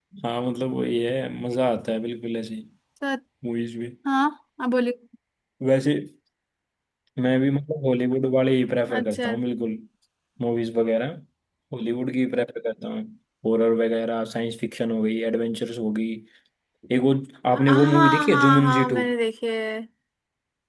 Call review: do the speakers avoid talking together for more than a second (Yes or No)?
No